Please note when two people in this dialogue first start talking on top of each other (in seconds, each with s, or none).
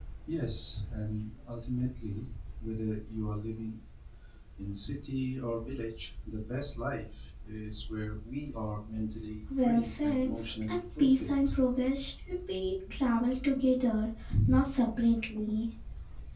9.5 s